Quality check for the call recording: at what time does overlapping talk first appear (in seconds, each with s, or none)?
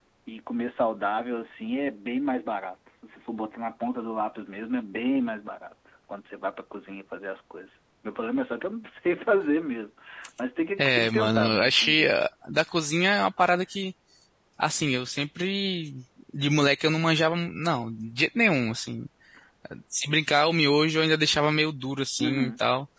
10.8 s